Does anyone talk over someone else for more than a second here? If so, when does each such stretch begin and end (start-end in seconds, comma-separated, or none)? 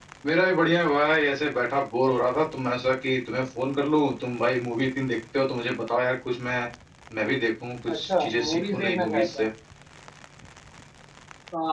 7.9-9.5